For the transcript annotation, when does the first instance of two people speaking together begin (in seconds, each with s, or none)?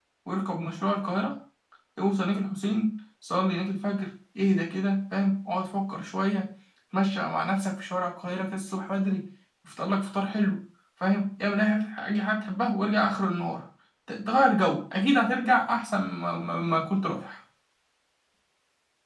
none